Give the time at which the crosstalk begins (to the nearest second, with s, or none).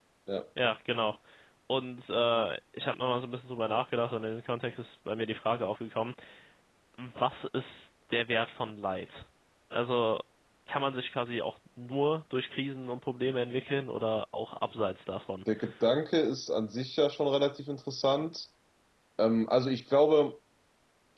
none